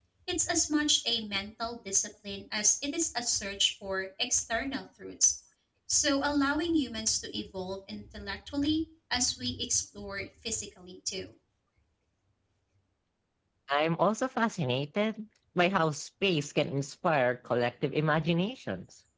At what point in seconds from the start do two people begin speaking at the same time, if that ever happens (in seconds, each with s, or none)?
none